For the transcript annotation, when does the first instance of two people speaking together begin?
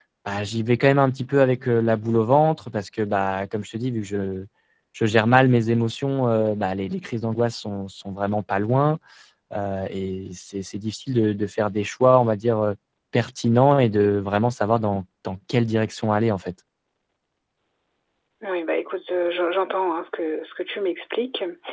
none

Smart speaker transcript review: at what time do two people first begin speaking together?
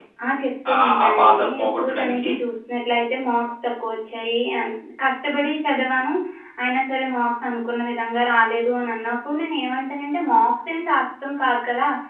1 s

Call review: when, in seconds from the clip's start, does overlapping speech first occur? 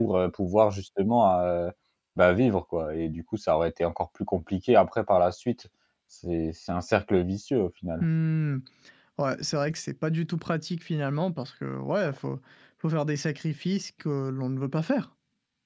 none

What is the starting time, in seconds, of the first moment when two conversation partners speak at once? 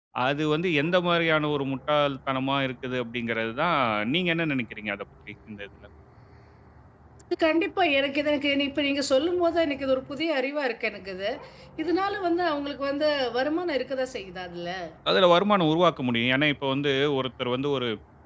none

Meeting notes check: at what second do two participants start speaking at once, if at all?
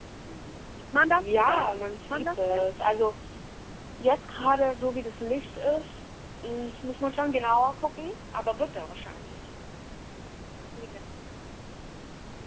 1 s

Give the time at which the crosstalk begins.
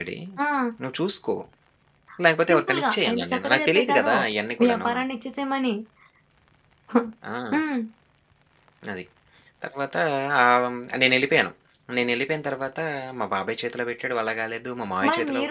2 s

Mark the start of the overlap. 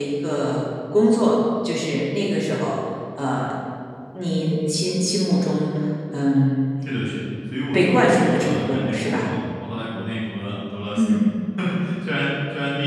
8 s

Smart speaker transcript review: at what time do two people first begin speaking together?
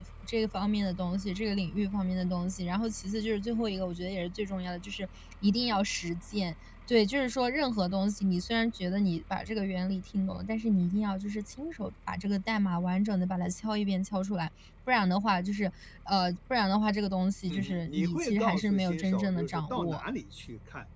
17 s

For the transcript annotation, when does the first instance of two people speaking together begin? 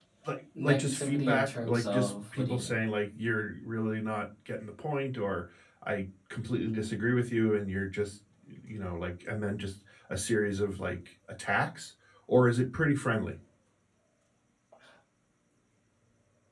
1 s

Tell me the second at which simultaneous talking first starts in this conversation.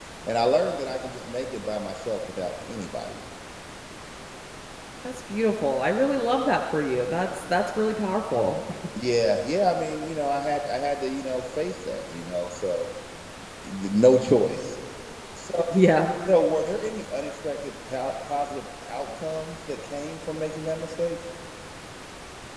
none

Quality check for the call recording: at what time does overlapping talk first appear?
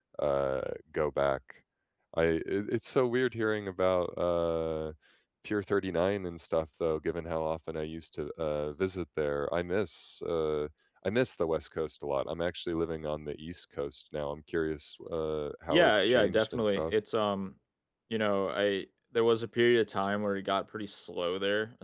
16 s

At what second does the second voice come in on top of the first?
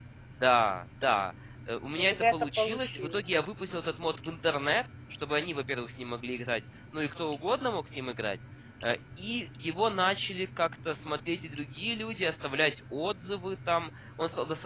2 s

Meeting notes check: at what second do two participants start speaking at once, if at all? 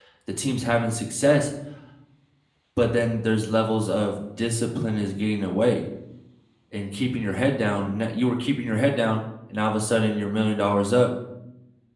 none

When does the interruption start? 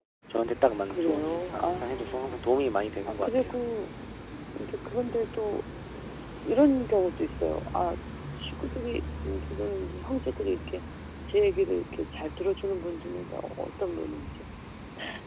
1 s

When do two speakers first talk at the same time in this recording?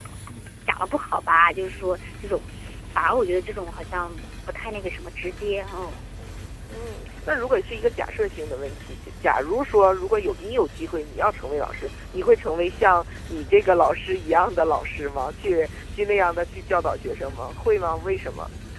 none

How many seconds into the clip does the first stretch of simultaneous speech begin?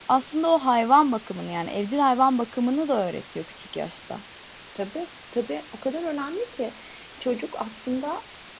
none

